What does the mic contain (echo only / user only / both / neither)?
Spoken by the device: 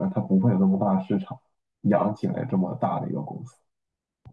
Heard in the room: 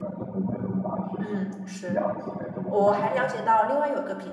both